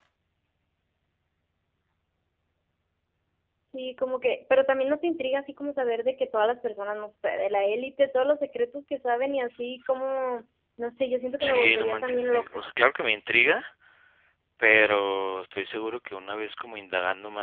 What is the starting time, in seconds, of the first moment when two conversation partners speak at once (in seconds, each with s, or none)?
11.4 s